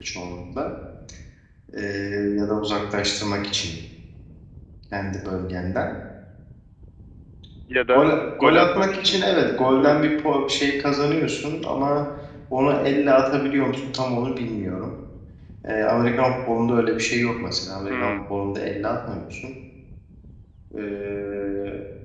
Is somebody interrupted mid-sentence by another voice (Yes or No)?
Yes